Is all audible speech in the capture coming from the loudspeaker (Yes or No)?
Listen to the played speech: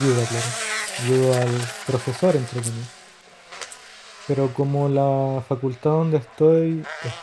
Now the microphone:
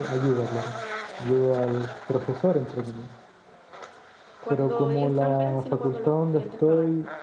No